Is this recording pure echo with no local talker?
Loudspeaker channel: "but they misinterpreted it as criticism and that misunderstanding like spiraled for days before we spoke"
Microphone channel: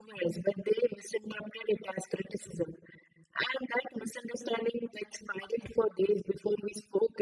Yes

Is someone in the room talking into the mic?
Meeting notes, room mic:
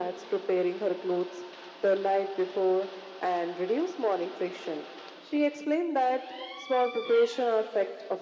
No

